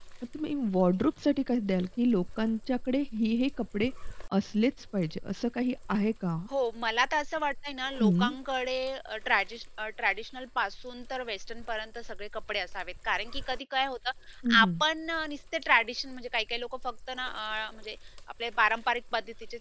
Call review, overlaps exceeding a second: none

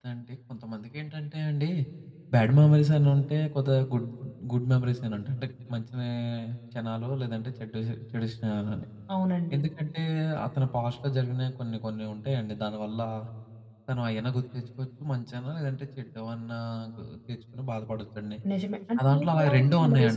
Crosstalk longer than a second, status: present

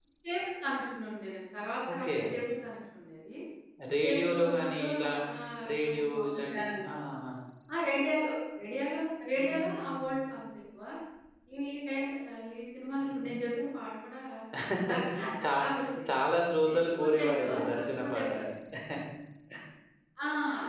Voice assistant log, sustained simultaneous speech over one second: present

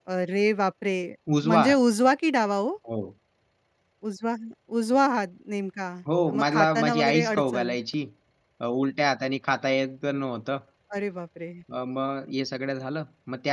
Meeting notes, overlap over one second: present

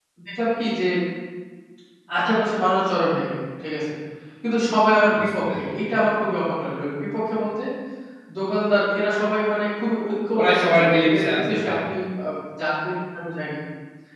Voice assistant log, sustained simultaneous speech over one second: present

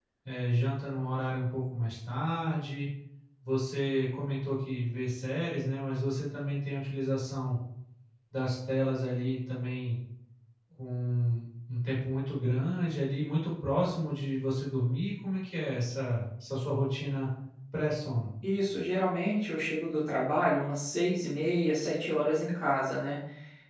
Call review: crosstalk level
none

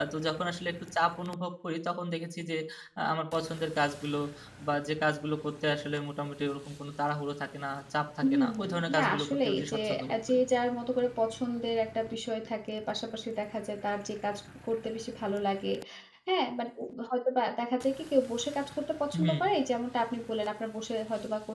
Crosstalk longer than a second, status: present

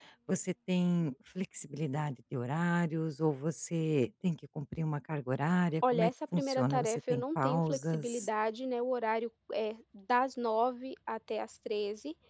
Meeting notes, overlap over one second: present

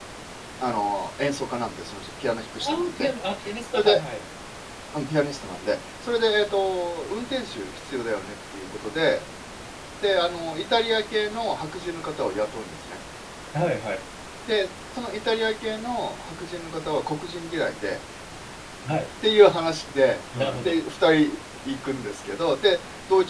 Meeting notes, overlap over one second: none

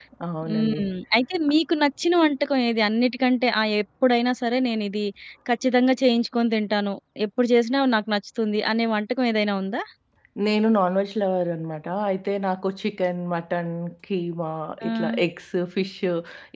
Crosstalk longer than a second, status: none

